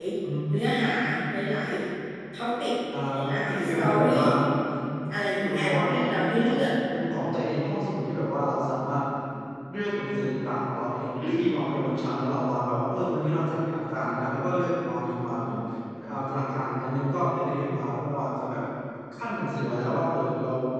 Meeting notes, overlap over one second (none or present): present